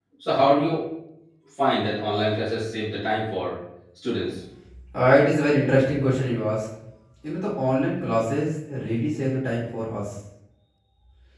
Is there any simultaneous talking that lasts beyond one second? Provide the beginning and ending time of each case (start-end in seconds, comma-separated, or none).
none